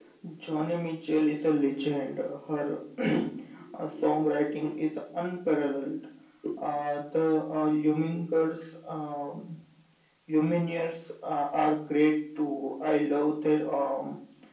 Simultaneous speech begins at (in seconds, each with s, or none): none